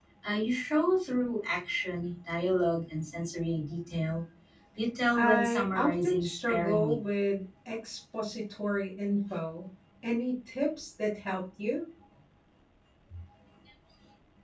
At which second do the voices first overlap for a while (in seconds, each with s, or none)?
5.2 s